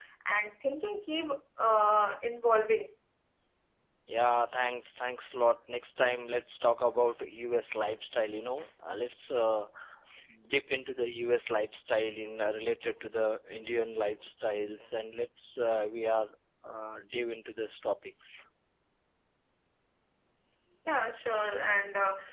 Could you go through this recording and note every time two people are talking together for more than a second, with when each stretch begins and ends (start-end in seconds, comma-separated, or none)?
none